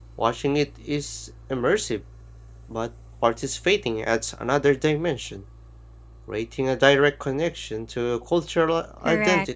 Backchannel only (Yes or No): No